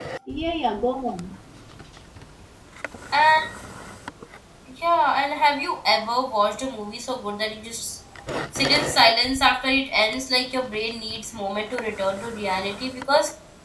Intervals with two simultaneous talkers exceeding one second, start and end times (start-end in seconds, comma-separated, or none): none